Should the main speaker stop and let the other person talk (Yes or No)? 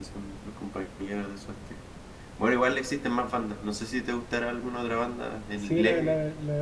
Yes